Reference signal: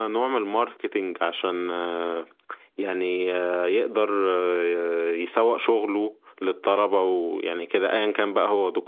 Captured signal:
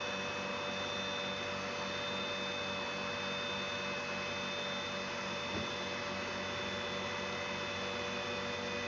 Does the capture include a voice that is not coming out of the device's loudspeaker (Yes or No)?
No